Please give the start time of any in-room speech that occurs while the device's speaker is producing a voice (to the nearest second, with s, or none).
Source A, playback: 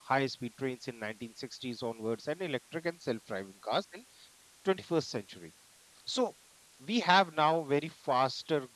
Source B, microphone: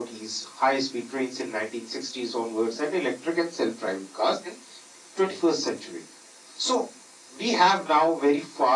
none